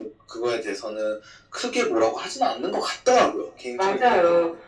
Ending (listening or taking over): taking over